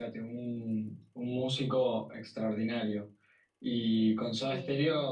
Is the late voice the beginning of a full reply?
No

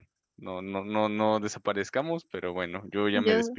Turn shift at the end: No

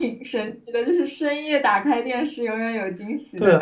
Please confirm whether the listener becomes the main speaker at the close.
Yes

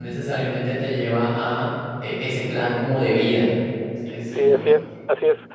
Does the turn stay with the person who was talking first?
No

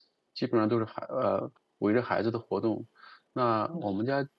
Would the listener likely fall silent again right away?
Yes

